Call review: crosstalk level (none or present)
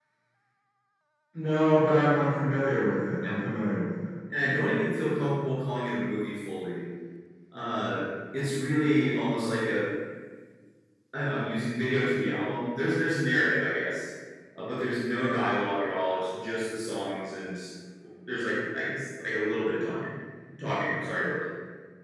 none